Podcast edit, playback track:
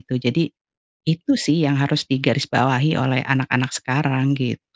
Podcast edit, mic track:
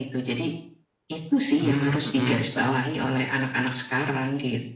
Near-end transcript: Mmm, mhm.

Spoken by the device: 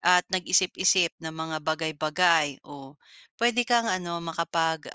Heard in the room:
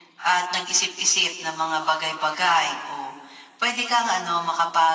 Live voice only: none

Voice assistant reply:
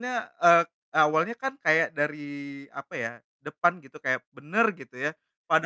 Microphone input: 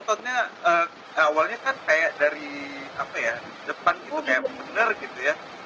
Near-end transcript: Oh, gitu? Tenet.

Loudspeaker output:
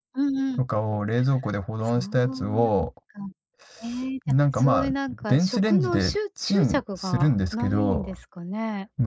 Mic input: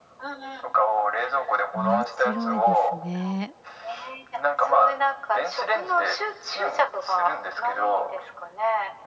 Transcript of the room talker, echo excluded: 面白いですね。

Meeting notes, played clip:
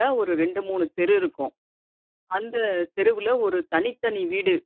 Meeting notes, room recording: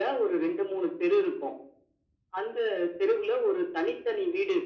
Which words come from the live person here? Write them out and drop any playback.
none

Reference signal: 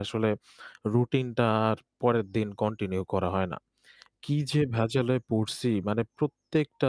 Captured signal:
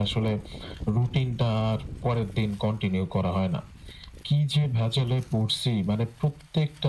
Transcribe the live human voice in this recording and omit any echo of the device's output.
none

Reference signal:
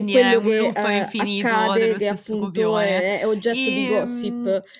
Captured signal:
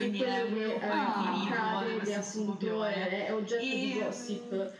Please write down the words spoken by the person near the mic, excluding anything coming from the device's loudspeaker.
Ah.

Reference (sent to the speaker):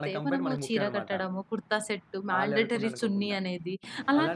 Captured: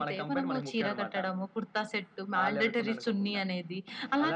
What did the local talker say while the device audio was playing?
none

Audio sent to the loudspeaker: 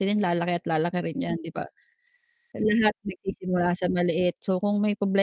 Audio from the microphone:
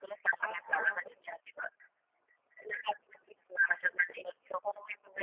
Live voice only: Oo.

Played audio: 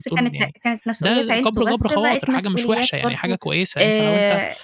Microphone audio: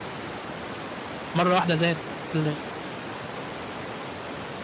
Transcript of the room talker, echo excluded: مرة واحدة زاد ل

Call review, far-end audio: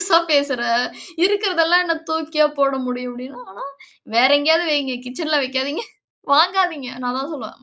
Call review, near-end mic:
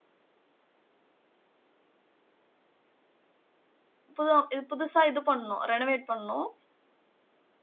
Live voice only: புது ம் புதுசா இது பண்ணோம். ரெனவேட் பண்ணோம்.

